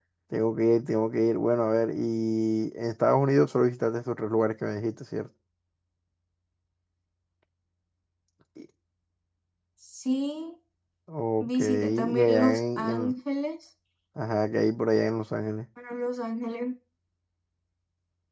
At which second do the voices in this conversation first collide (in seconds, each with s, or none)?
11.4 s